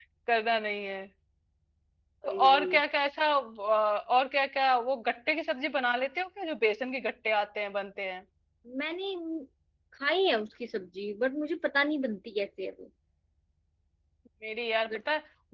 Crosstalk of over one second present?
No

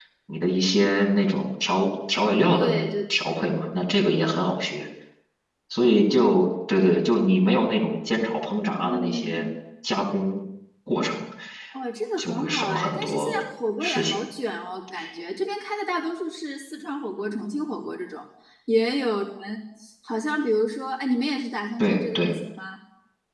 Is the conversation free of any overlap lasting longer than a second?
No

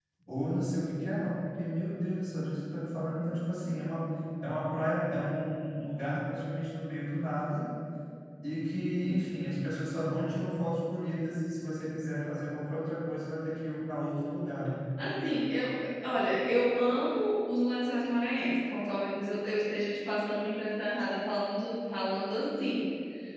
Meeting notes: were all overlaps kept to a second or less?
Yes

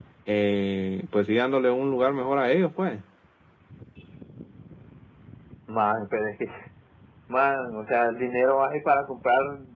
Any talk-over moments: No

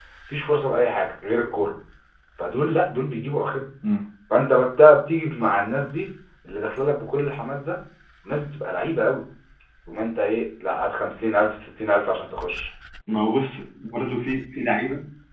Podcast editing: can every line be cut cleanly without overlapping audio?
Yes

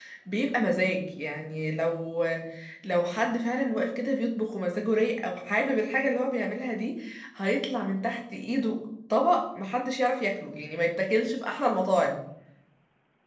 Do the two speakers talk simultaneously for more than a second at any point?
No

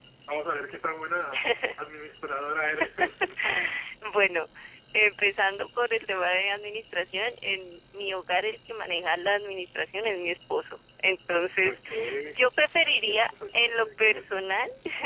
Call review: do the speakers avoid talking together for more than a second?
No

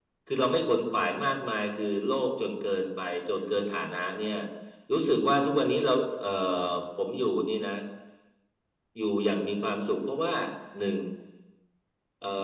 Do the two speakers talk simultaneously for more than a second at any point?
No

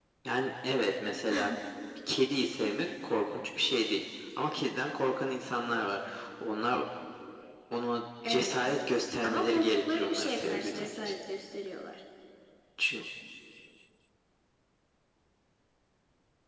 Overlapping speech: Yes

